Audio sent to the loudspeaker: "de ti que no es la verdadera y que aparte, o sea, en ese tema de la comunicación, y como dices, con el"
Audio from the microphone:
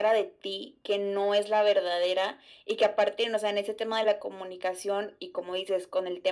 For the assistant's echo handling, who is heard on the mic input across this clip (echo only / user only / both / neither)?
echo only